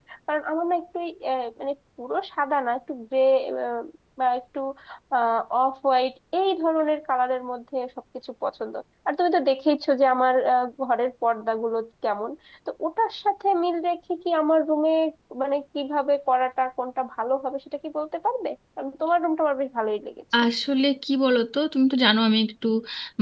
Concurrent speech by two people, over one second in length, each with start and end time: none

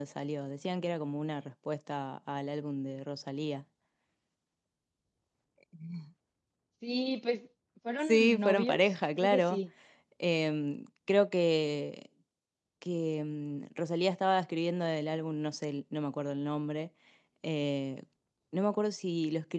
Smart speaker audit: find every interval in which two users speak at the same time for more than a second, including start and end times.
8.1-9.6

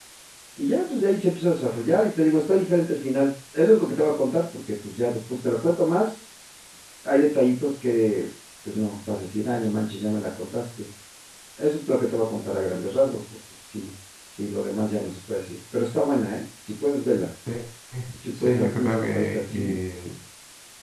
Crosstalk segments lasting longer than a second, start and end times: 18.4-19.8

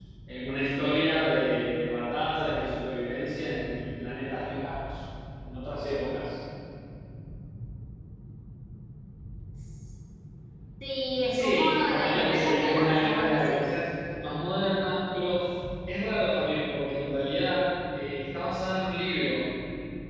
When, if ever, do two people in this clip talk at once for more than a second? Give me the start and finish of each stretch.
11.3-13.6

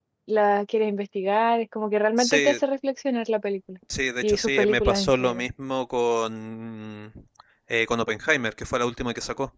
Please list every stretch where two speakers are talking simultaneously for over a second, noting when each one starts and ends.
4.2-5.4

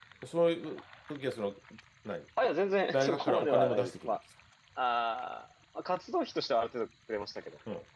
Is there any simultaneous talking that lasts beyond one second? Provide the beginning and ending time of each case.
2.9-4.1

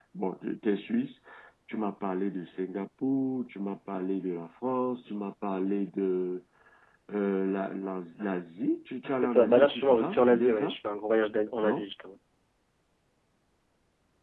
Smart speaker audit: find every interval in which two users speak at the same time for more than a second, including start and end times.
9.2-10.8

